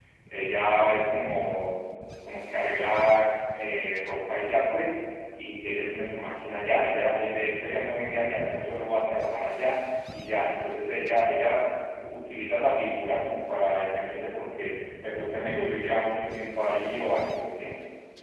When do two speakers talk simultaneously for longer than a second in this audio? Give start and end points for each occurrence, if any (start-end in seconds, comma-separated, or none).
none